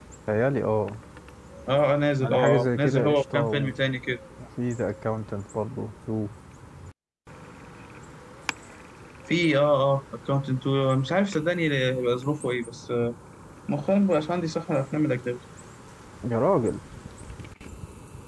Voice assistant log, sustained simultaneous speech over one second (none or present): present